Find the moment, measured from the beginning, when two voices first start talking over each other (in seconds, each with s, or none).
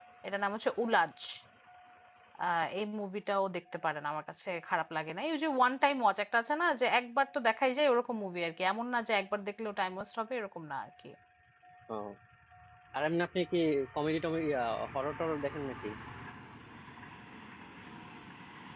none